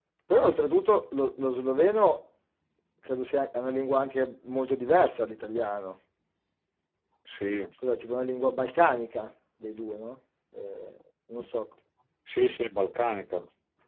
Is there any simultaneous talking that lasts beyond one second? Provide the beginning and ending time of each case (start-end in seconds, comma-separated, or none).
none